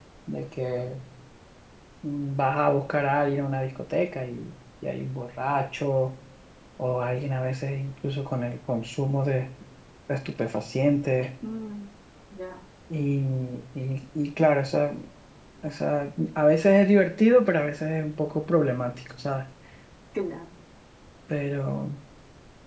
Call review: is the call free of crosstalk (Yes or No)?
Yes